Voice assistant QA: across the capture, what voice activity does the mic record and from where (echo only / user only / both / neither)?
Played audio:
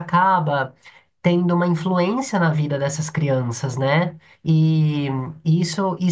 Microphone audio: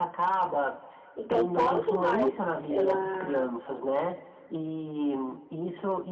both